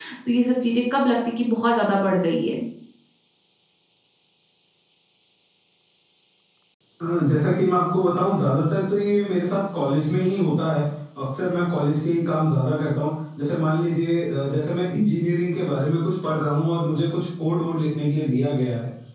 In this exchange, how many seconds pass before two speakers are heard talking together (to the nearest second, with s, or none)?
none